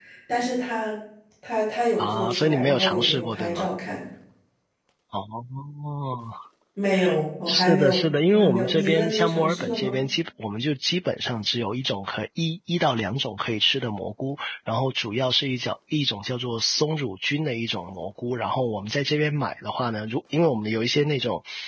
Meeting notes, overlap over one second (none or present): present